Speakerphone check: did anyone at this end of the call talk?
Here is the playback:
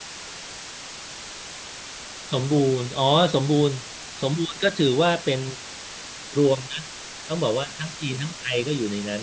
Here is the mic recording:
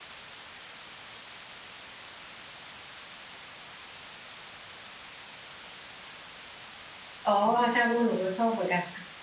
Yes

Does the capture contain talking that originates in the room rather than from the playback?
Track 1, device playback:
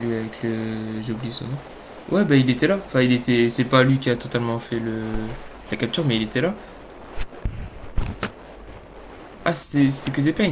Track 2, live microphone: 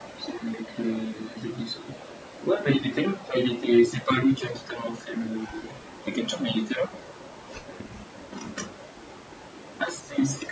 No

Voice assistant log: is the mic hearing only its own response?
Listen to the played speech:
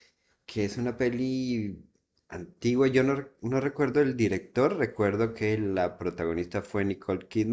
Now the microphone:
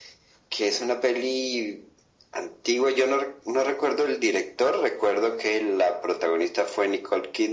Yes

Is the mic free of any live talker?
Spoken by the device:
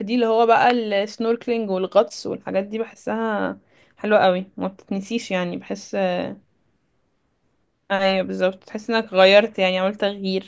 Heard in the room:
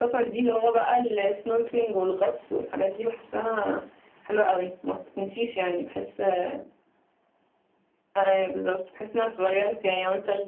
Yes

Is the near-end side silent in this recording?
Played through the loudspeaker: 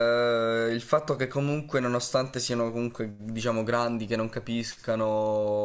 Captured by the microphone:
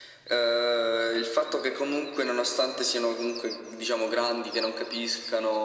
Yes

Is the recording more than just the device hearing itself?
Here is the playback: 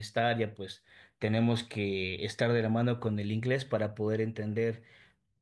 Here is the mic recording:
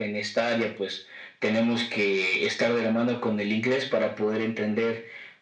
No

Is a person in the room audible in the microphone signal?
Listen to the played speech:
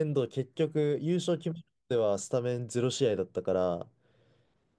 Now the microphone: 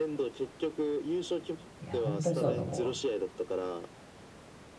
Yes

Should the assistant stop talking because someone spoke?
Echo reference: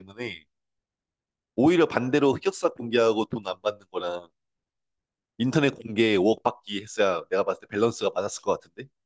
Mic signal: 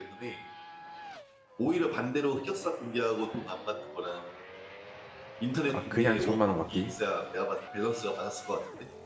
Yes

